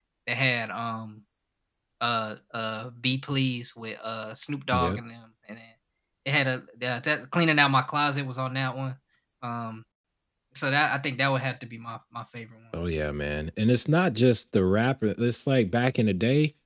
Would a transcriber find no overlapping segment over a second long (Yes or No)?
Yes